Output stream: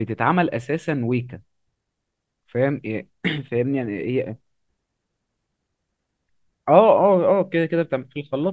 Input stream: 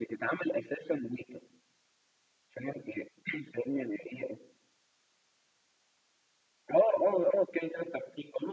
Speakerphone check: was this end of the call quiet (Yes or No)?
Yes